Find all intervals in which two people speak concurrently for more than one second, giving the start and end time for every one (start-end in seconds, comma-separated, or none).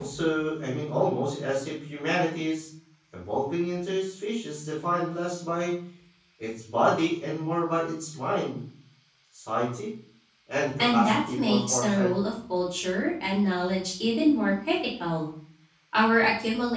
10.8-12.1